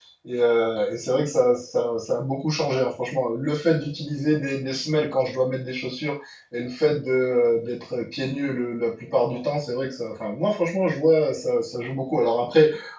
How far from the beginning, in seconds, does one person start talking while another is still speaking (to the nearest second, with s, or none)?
none